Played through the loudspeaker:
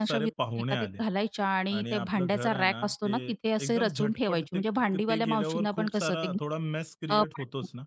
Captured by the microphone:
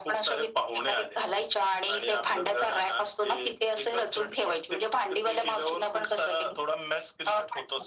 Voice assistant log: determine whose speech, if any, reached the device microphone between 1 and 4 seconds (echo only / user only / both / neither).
echo only